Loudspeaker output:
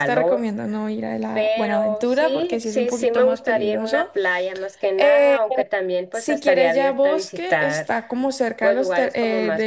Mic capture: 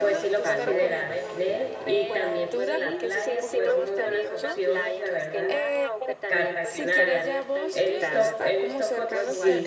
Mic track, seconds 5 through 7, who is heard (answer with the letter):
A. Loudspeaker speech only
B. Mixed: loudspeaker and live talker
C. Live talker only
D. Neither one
B